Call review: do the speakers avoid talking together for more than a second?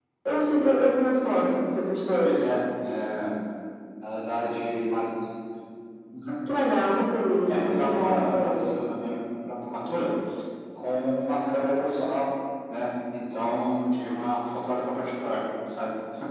No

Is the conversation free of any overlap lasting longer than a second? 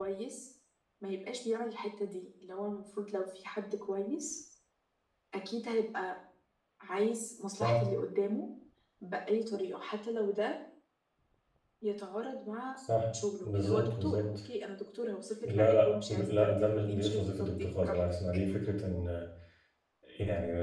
No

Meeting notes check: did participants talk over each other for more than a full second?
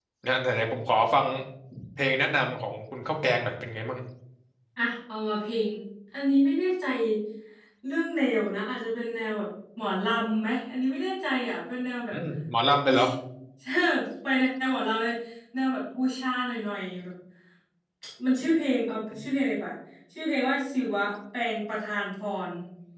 No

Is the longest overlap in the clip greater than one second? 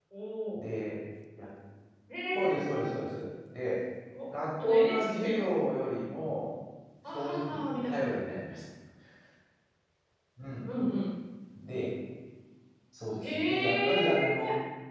Yes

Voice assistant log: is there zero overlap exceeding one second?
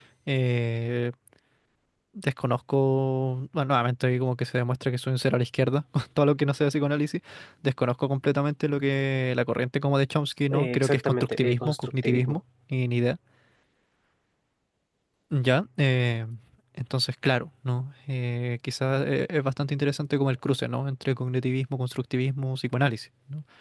No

